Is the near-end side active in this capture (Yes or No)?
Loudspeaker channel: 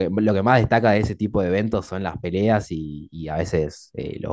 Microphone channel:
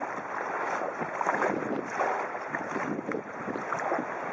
No